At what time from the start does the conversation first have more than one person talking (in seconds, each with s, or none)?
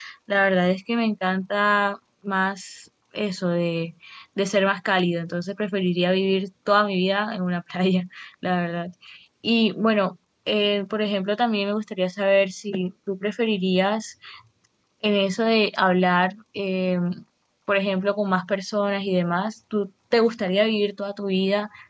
none